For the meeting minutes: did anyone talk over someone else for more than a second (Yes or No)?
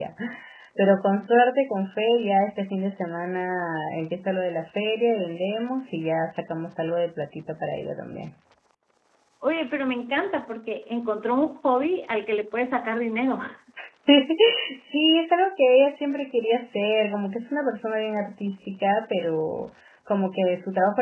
No